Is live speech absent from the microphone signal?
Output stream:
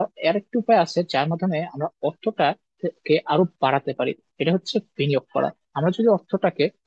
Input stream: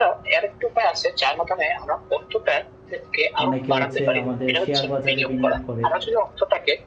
No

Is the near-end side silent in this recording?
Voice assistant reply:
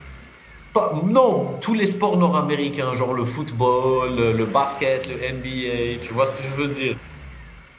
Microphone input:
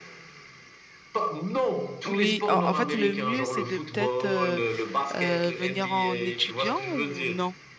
No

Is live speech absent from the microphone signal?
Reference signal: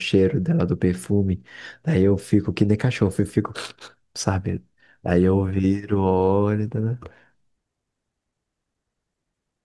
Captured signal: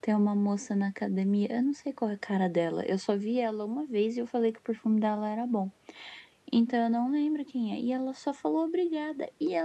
No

